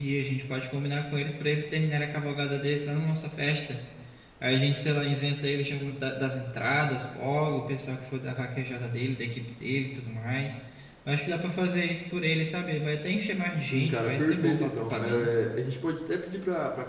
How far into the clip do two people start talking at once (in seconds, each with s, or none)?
13.6 s